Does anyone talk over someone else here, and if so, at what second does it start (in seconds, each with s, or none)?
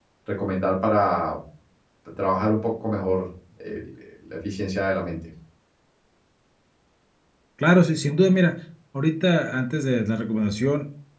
none